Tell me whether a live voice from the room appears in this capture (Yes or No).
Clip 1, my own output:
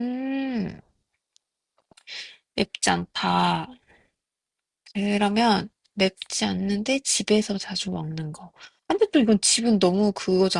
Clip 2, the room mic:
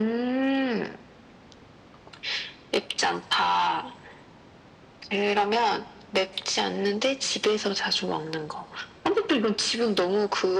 No